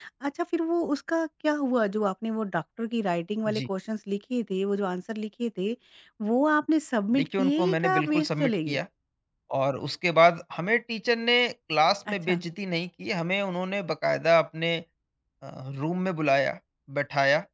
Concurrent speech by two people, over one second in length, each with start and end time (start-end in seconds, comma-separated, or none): 7.1-8.8